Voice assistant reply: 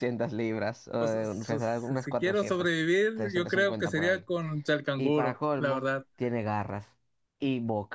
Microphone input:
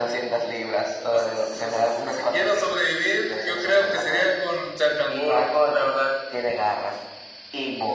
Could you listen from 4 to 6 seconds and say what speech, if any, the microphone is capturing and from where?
echo only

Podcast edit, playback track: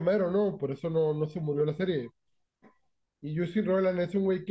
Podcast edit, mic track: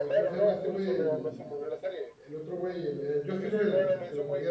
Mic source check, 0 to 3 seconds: both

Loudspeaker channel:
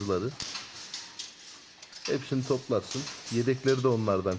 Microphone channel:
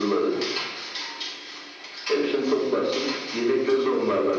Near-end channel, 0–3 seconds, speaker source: echo only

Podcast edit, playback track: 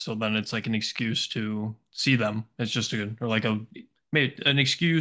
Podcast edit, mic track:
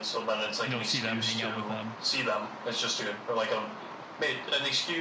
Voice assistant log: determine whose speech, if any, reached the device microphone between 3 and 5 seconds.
echo only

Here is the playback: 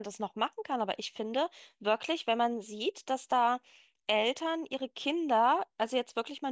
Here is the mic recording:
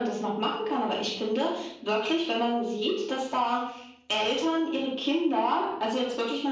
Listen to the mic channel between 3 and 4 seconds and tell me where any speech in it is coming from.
echo only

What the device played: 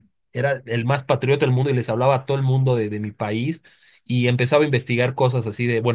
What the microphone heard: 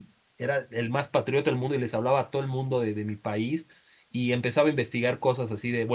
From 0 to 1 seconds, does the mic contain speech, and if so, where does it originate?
echo only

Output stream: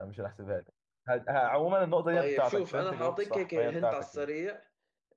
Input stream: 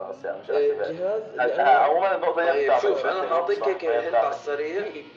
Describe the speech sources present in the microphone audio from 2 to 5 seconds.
both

